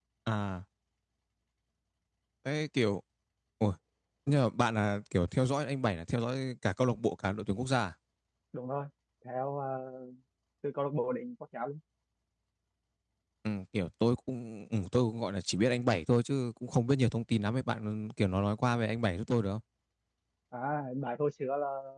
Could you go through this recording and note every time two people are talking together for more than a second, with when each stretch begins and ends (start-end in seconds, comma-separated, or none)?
none